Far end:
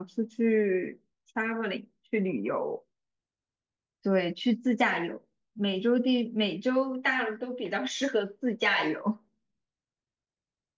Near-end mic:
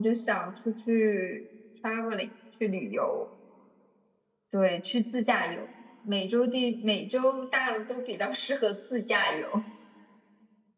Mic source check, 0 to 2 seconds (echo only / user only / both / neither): echo only